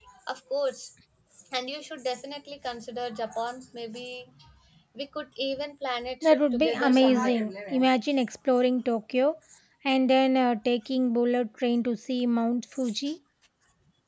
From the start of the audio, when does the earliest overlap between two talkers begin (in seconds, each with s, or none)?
6.2 s